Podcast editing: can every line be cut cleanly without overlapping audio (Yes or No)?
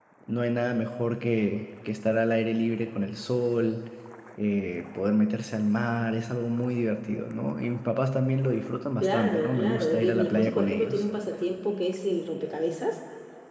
No